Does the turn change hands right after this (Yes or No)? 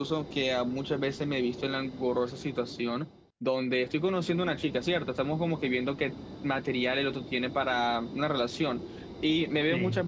No